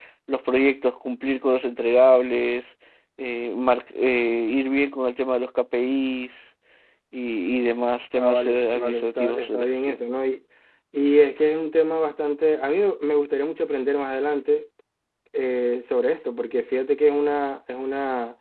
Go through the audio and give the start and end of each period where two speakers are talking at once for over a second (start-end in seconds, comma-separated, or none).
8.1-10.0